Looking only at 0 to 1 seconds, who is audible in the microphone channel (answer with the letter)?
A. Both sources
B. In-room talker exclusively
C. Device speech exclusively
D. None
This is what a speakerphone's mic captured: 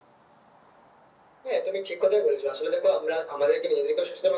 D